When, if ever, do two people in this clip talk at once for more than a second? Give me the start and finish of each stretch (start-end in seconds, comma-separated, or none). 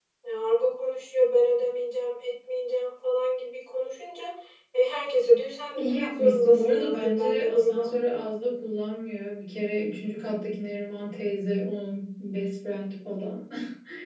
5.7-7.9